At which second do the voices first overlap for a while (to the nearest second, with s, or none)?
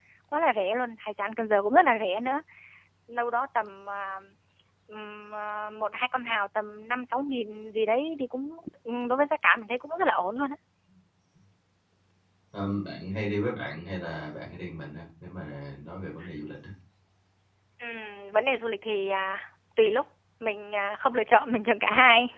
none